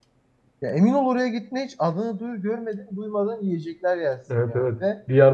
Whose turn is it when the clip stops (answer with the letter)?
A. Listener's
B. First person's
A